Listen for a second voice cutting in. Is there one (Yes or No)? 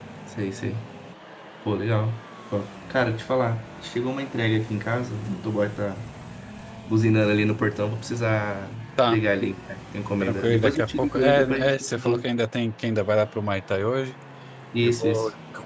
Yes